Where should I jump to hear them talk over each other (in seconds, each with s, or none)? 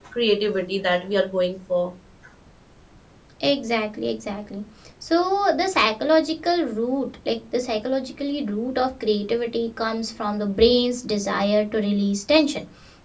none